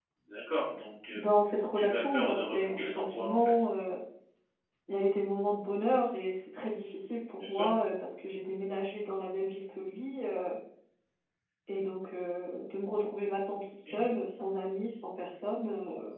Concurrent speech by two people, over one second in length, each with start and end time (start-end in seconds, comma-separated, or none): 1.8-3.5